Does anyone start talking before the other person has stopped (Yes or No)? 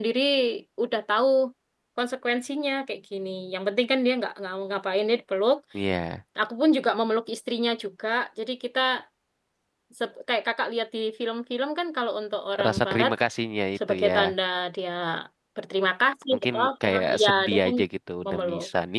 Yes